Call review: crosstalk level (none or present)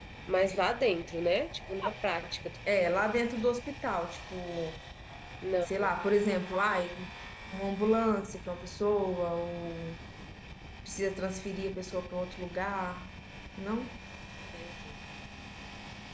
none